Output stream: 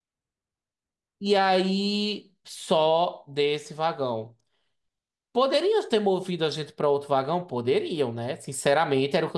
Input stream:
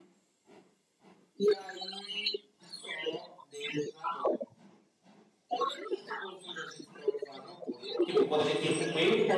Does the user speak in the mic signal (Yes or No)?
Yes